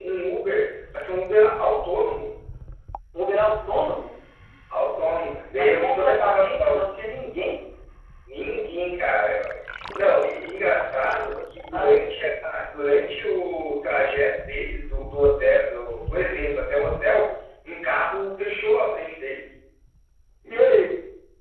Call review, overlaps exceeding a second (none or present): present